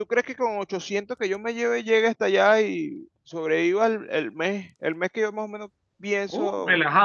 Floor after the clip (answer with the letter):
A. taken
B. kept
A